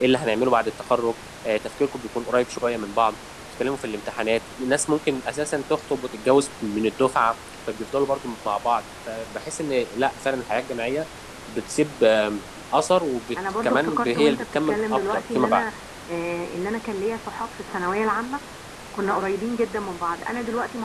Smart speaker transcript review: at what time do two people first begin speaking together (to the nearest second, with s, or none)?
14 s